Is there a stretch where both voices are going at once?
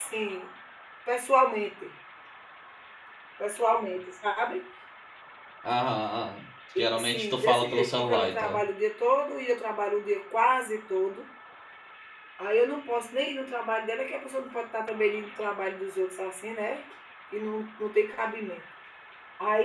Yes, from 6.8 s

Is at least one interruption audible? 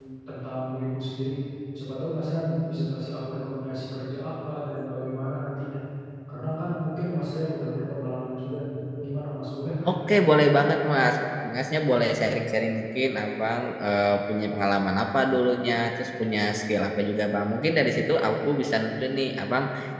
No

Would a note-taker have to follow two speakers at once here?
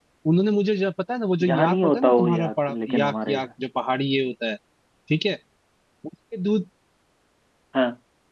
Yes, from 1.4 s

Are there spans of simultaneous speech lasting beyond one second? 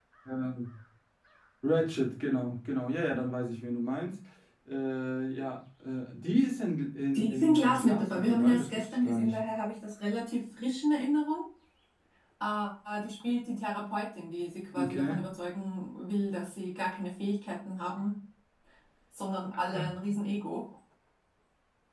Yes, from 7.1 s

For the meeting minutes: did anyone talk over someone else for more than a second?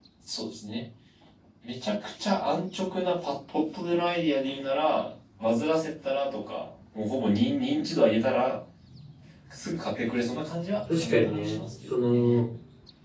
Yes, from 10.9 s

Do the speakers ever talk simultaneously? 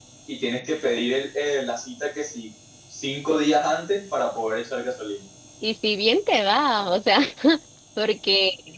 No

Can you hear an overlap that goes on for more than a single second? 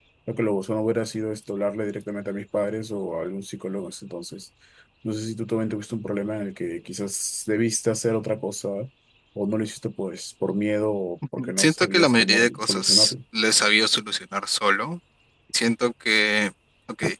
Yes, from 11.4 s

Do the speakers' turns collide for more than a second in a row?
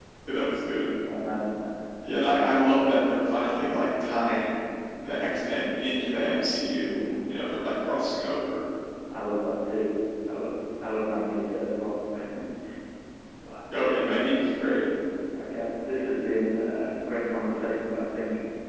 No

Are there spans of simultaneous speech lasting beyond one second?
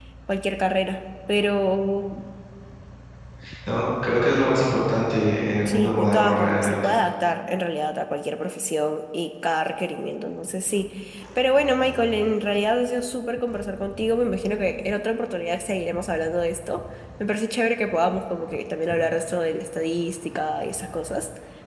Yes, from 5.7 s

